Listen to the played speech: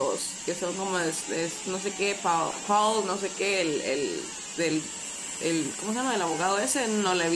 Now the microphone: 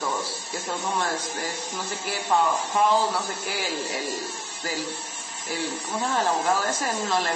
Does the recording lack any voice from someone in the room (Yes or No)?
Yes